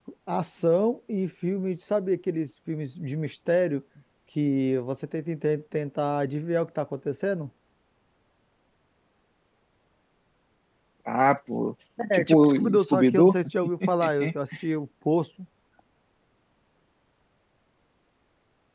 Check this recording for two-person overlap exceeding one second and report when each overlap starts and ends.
12.1-13.4

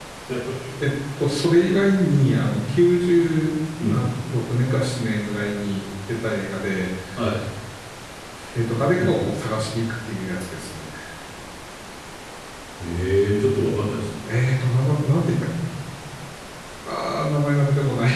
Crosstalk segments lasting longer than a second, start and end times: none

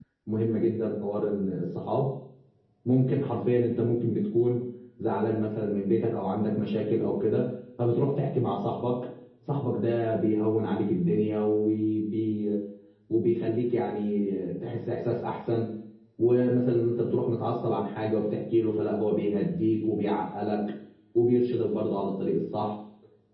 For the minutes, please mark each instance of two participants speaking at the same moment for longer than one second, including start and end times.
none

